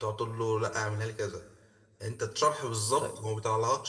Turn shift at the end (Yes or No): No